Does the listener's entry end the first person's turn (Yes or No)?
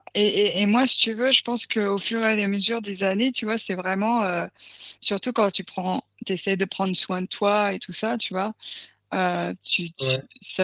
No